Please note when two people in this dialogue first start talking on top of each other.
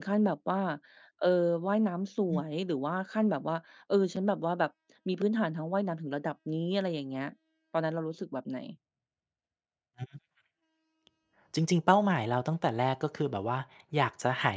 none

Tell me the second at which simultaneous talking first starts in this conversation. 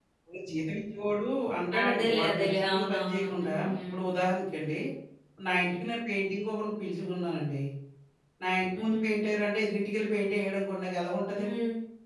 2 s

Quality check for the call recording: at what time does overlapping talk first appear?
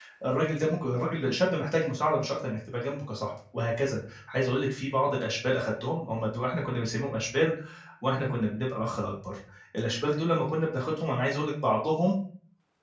none

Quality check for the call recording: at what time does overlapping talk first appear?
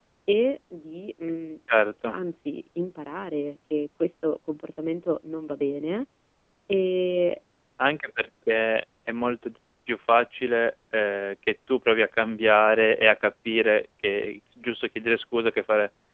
none

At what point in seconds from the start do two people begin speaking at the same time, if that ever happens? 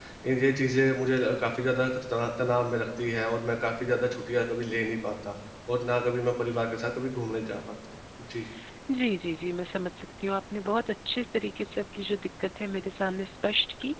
none

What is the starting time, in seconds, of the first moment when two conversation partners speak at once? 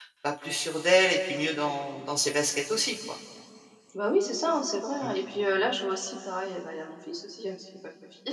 none

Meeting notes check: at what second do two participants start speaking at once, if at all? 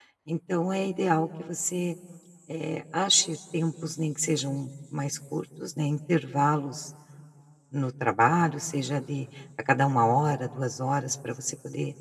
none

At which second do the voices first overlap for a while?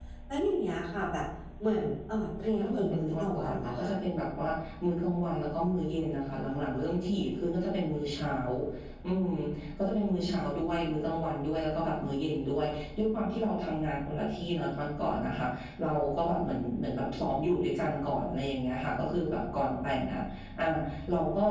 2 s

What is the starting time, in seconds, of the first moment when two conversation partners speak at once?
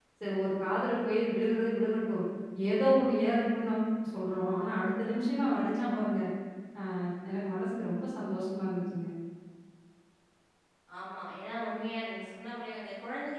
none

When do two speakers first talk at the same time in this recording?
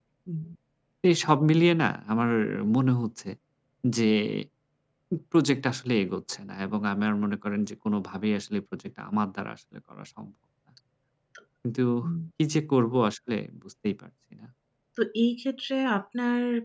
none

